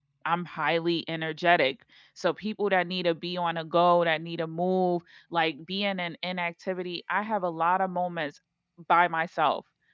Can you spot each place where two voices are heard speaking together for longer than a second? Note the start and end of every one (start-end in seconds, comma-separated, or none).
none